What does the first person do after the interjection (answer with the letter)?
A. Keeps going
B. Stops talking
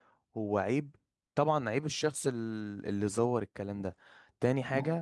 A